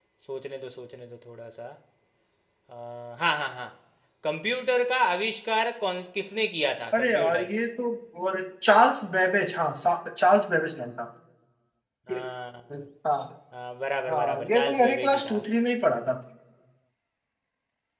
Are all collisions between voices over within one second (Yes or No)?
No